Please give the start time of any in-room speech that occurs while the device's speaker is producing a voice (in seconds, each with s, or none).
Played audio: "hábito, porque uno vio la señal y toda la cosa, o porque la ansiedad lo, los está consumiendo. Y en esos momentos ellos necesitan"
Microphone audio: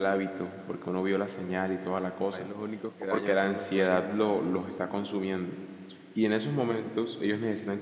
2.3 s